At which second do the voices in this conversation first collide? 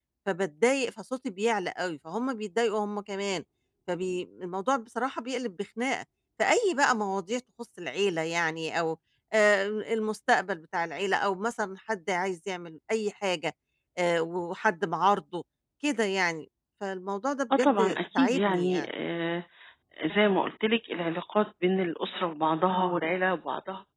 17.5 s

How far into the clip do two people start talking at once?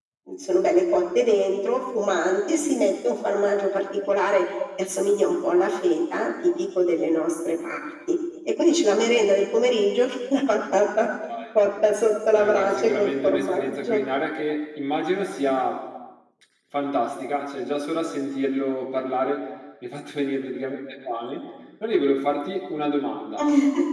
12.4 s

